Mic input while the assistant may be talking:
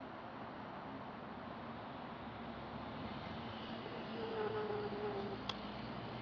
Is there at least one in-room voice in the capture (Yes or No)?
No